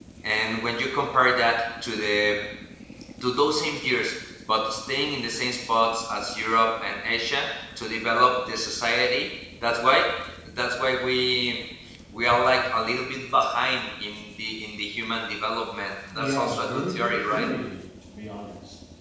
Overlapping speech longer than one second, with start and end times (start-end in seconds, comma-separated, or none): 16.1-17.5